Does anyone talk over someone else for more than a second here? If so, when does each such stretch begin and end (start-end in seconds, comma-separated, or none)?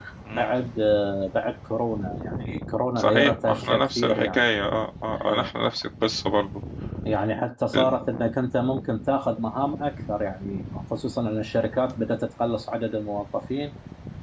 3.0-4.4